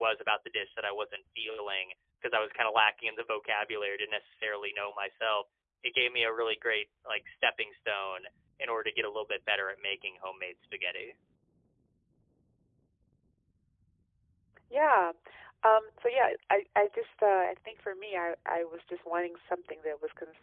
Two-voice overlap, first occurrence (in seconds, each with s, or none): none